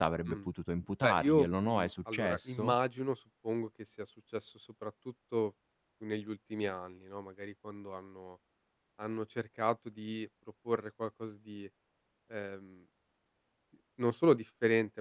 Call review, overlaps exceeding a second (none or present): present